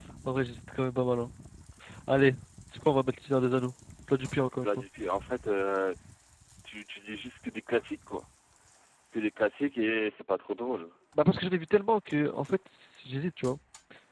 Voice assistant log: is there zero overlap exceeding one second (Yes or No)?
Yes